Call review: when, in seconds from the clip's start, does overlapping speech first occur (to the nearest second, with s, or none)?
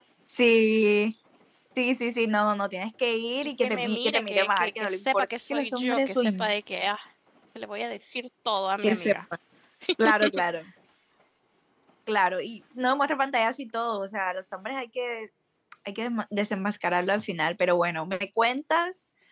4 s